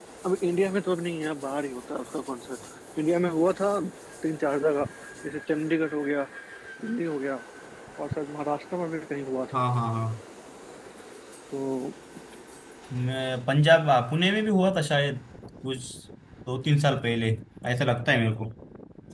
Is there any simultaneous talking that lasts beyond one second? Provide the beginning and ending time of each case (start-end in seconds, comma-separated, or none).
none